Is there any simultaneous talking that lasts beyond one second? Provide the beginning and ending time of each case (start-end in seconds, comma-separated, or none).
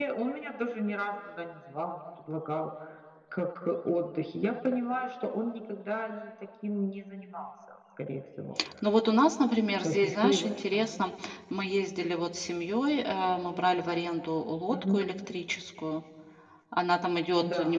9.8-11.1